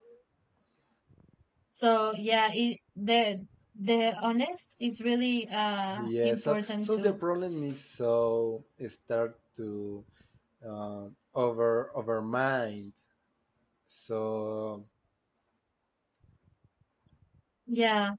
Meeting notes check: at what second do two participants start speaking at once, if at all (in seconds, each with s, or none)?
5.9 s